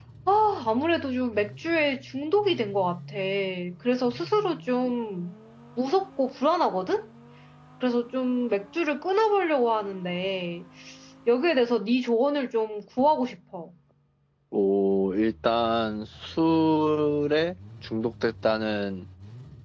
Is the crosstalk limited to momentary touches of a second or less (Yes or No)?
Yes